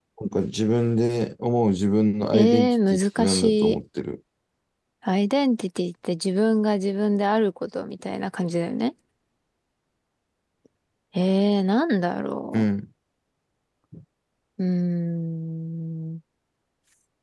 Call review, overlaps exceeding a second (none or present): present